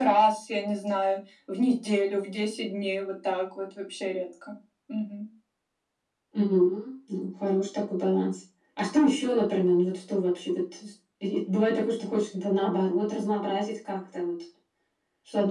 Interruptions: none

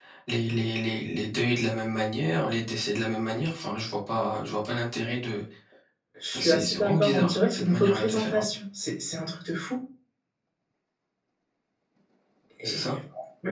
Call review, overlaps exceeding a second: present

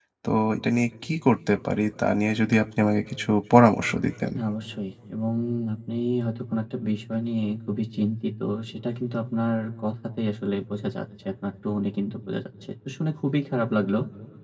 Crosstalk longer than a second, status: none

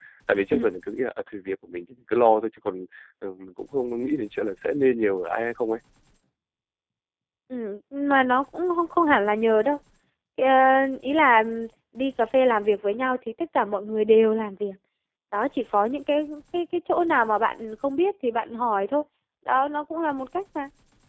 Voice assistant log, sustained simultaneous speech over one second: none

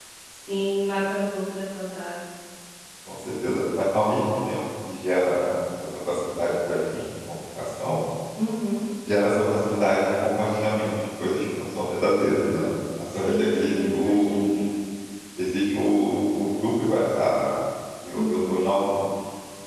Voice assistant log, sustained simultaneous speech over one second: present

